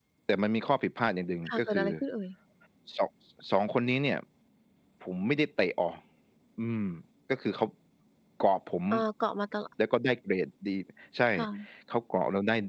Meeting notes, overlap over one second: none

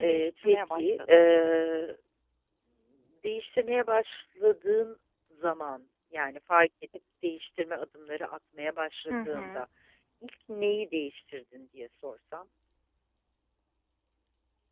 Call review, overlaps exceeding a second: present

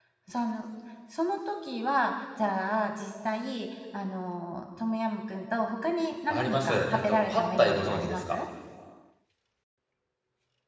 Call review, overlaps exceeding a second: present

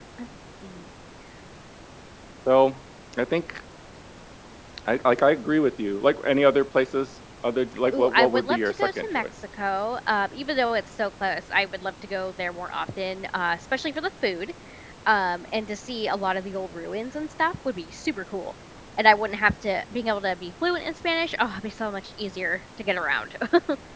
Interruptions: present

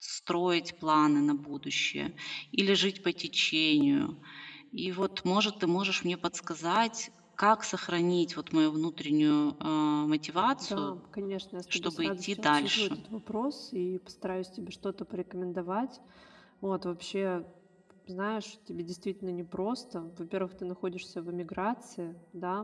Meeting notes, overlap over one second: present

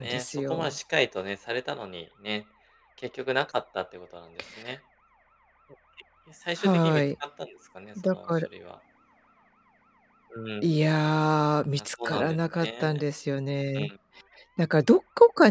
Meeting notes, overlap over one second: present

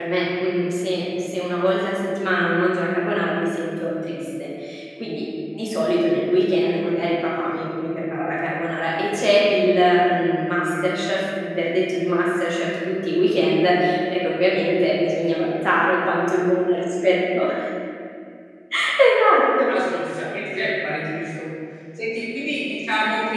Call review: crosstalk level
none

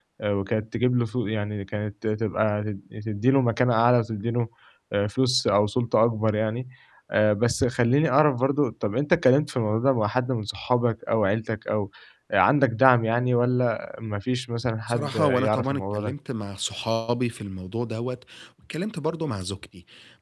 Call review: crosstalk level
present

